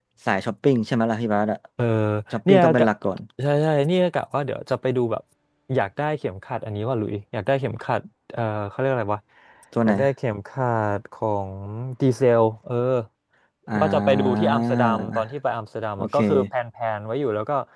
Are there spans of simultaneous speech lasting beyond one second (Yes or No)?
Yes